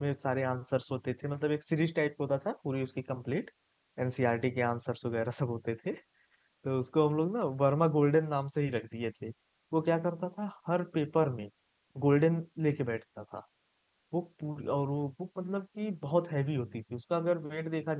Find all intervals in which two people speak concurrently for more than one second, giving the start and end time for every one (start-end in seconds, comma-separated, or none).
none